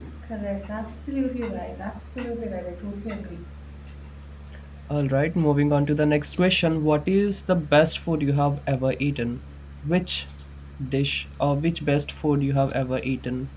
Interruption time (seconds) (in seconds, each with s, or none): none